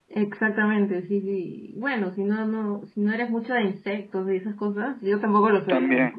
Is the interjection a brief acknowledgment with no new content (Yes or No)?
Yes